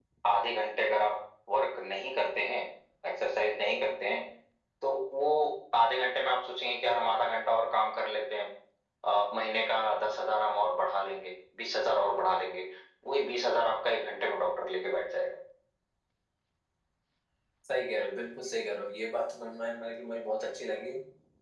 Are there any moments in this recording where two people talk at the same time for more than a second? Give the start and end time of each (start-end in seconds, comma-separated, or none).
none